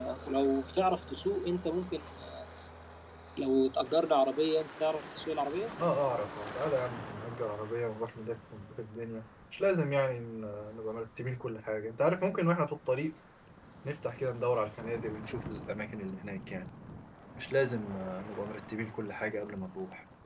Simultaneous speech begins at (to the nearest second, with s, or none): none